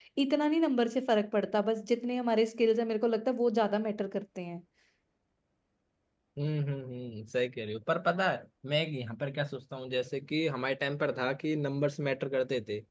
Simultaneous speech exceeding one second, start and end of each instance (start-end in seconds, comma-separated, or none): none